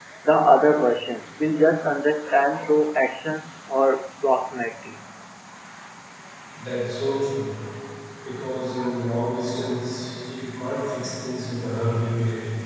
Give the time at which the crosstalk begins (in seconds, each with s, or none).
none